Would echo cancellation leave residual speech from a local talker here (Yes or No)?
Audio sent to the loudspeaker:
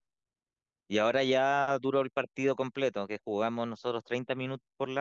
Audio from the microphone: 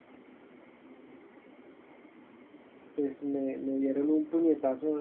Yes